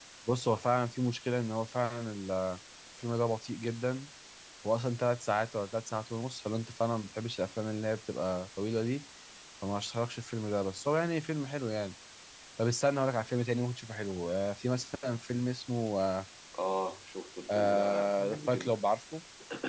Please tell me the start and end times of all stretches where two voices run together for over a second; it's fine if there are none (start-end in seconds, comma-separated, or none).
17.5-18.8